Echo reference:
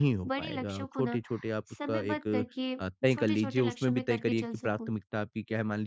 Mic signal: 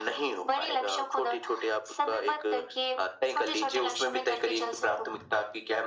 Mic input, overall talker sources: echo only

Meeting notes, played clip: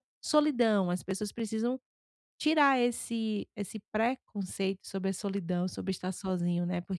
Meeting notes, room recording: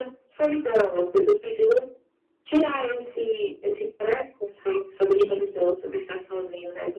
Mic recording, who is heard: both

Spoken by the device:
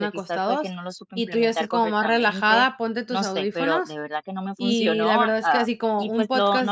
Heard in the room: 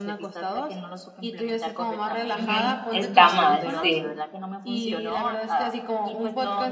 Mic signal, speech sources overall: both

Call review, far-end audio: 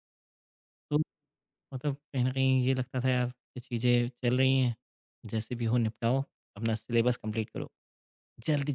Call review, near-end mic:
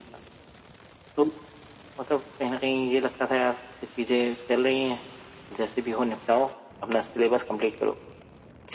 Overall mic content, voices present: echo only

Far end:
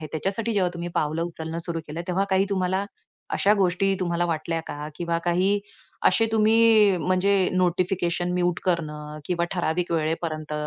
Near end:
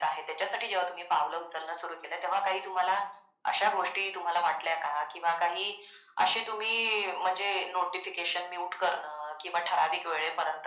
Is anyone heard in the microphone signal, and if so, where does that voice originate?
echo only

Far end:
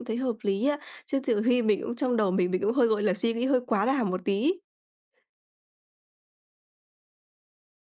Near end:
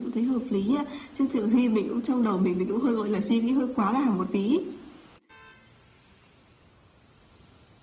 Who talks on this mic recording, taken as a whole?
echo only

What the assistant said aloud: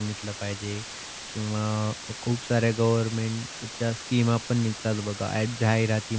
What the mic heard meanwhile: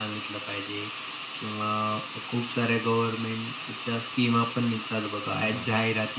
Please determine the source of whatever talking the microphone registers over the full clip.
both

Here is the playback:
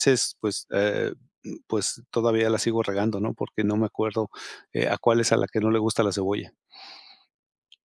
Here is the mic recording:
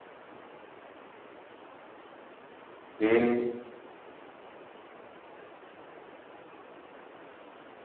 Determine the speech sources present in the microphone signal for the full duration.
user only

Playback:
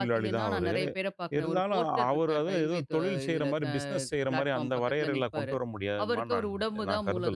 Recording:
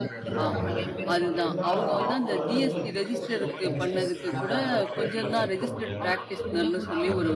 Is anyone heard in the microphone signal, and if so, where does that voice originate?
both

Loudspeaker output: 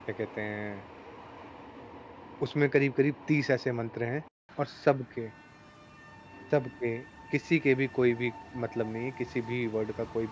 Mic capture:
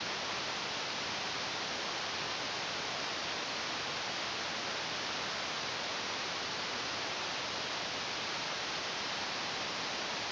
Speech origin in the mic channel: neither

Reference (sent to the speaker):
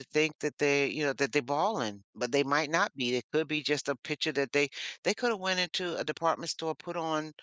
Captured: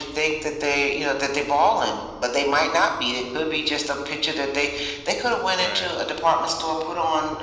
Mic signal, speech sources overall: both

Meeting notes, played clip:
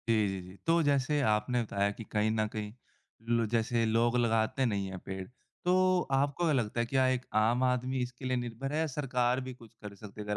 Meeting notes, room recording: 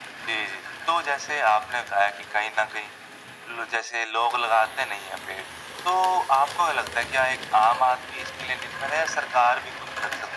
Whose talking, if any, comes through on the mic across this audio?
echo only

